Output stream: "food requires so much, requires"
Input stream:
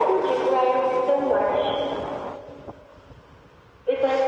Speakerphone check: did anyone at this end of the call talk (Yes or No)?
No